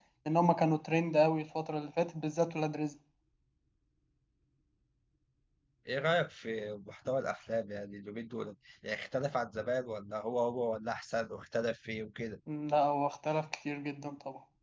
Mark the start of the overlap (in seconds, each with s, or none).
none